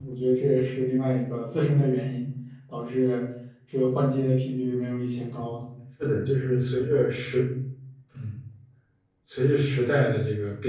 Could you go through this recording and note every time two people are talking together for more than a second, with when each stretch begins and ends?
none

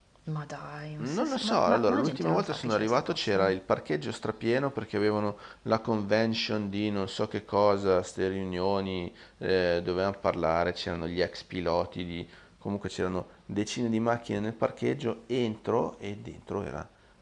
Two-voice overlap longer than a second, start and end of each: 1.0-3.5

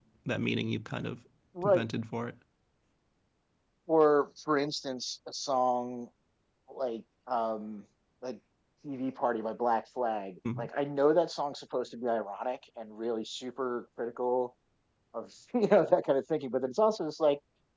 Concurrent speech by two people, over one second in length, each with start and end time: none

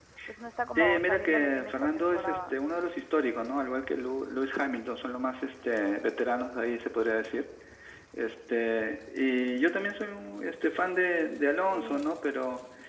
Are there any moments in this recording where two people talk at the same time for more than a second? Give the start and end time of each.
0.8-2.5

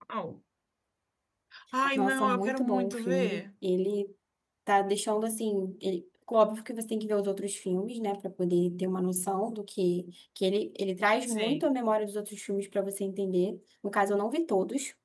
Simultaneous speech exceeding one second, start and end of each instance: 1.9-3.4

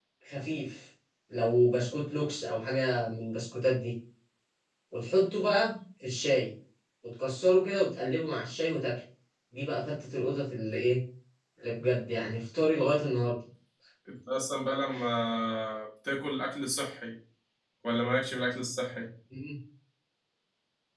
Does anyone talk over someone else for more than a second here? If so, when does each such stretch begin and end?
none

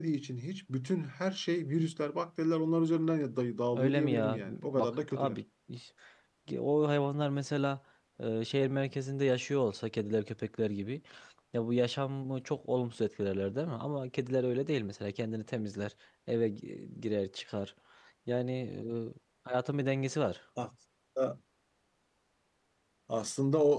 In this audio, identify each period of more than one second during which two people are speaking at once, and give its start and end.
3.7-5.4

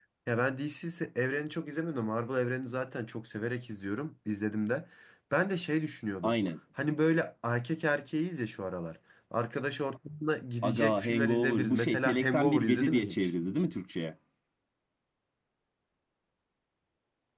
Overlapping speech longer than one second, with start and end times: 10.6-13.3

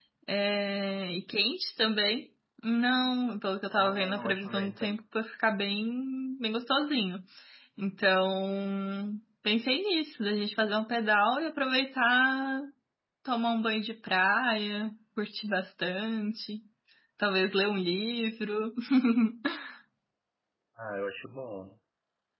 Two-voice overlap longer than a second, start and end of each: 3.7-5.0

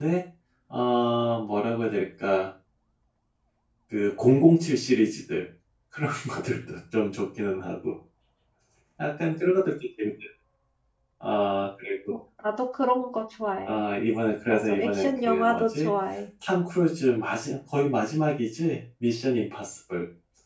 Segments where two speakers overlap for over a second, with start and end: 14.5-15.9

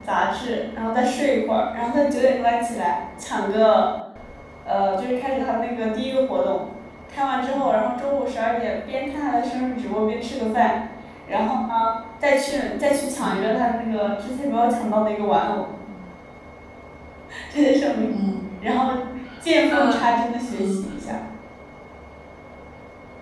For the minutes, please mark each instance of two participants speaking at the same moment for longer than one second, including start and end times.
none

